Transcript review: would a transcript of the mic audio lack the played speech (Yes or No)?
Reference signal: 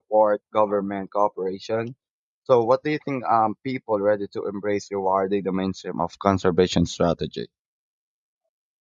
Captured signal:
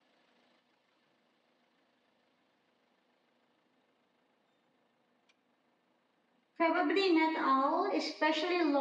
Yes